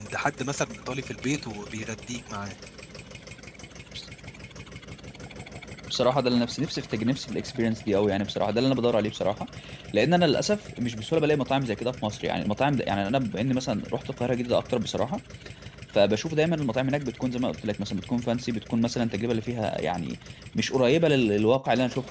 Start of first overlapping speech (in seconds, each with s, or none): none